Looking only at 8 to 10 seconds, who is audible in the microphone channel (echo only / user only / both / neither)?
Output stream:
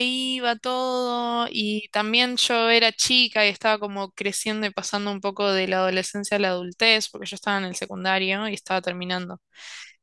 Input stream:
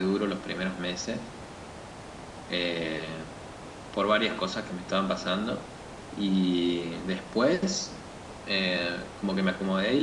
user only